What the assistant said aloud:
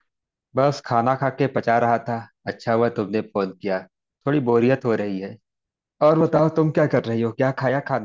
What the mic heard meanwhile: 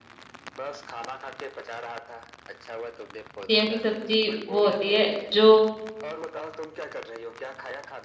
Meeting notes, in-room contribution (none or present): present